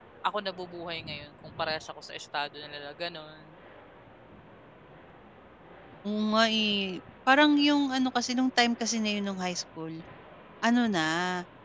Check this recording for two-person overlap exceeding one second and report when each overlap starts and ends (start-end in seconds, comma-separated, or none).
none